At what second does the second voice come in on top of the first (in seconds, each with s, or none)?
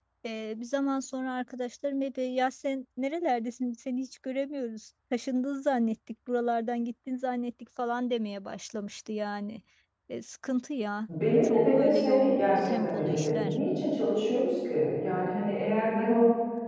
11.1 s